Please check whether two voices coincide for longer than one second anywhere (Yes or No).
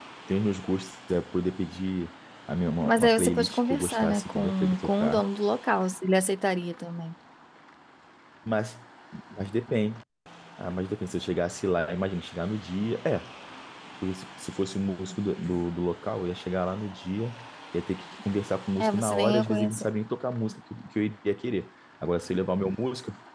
Yes